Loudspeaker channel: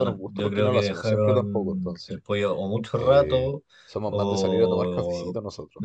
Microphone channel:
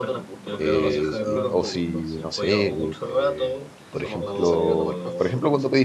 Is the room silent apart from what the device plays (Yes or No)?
No